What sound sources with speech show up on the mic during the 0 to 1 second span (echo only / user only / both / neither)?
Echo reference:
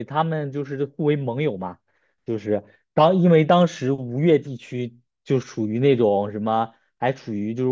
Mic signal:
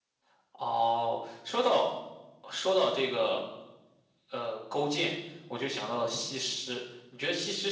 user only